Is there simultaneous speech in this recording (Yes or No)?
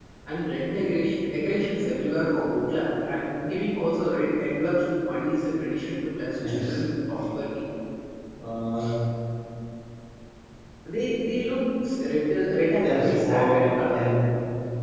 Yes